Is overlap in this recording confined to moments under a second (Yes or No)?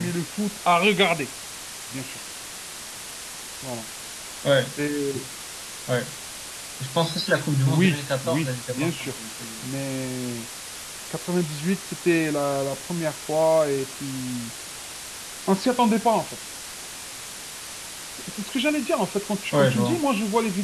No